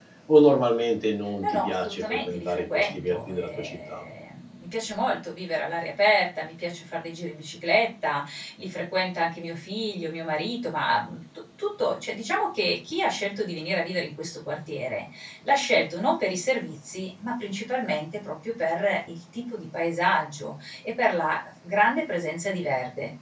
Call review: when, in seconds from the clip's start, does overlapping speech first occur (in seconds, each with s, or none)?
1.4 s